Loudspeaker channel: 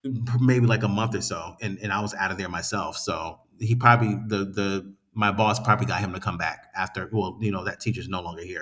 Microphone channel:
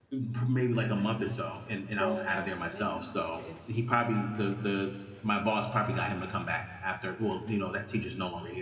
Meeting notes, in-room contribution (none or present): present